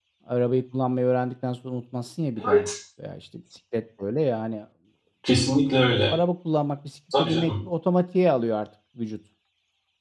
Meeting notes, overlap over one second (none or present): none